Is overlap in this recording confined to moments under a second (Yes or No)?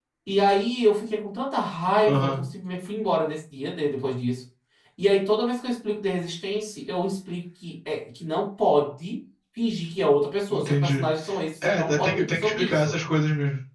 No